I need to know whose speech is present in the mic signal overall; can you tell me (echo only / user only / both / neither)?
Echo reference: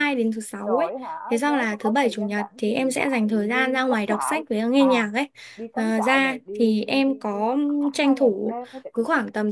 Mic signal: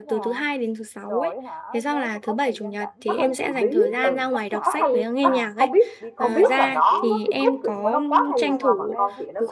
both